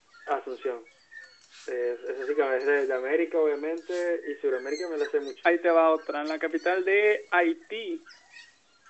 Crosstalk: none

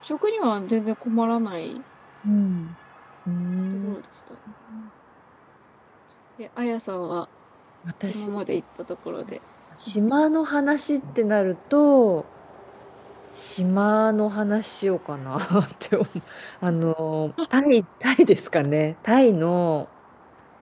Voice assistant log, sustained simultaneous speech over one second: none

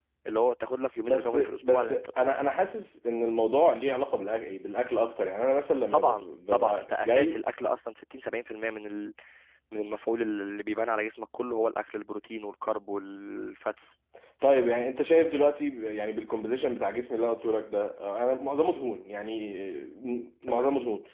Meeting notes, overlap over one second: present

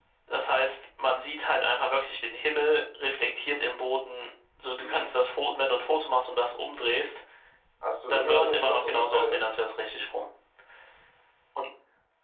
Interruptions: present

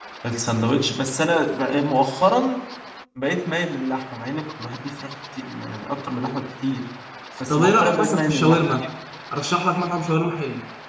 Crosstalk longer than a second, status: present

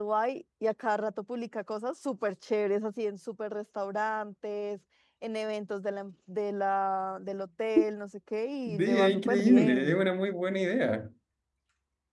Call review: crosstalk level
present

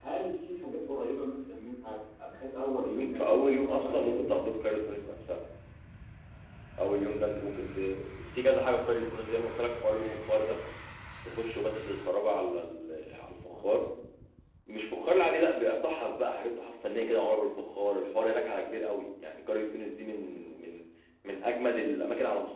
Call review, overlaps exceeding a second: present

